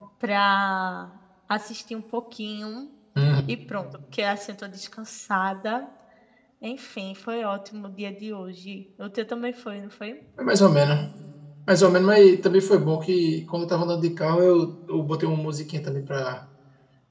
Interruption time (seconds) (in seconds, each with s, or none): none